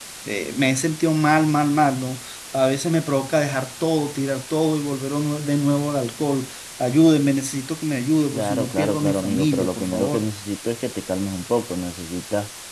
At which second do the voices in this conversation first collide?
8.3 s

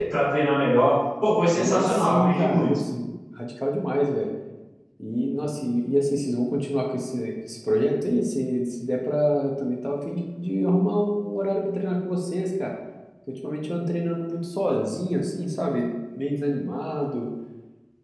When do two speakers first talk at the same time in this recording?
1.5 s

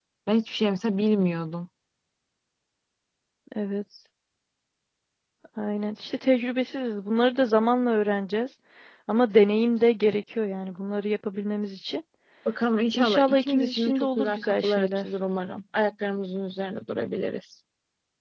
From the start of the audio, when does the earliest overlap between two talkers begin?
12.9 s

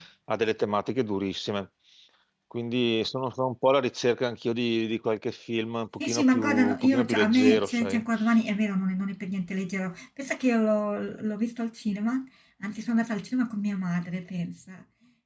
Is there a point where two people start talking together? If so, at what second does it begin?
6.0 s

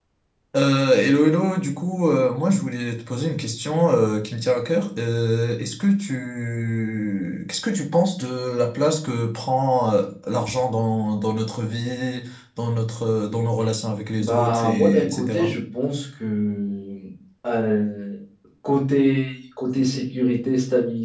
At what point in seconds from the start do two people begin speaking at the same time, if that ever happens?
14.2 s

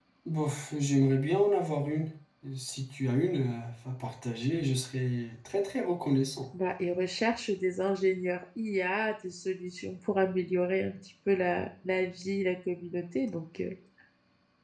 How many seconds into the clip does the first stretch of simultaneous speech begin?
none

